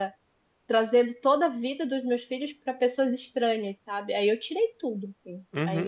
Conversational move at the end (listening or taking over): taking over